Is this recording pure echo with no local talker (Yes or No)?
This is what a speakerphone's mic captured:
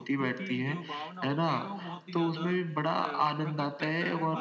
No